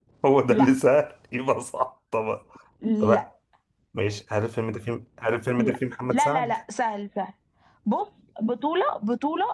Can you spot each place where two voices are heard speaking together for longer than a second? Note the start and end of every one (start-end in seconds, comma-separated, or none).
none